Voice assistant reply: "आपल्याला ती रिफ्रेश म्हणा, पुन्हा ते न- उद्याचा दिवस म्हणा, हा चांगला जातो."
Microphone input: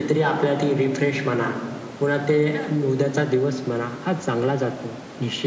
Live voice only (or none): none